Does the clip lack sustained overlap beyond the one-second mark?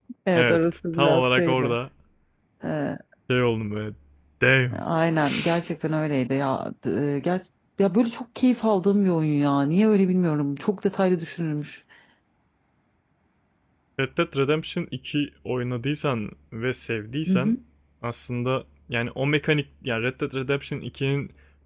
No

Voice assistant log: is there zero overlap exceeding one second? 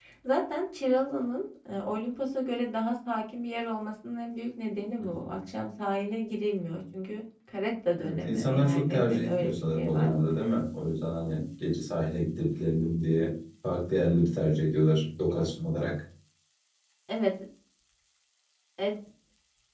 No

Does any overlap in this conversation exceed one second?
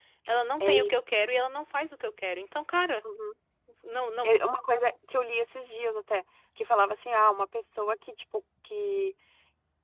No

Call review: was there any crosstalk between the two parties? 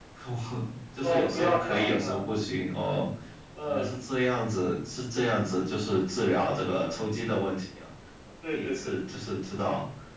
Yes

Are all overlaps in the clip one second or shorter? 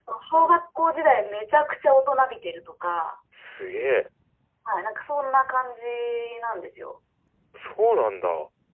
Yes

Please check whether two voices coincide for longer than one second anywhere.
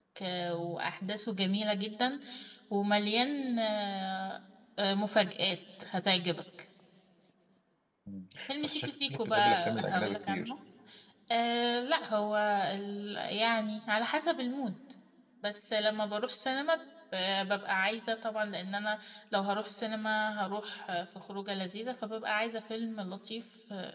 Yes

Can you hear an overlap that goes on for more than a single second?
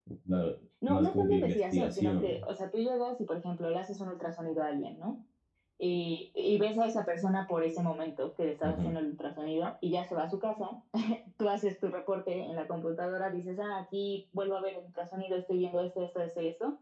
Yes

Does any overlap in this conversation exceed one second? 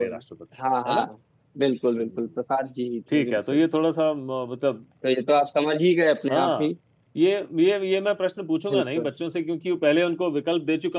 No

